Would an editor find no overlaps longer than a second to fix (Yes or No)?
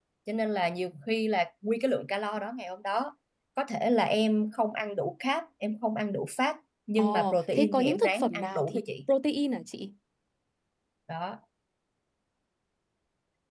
No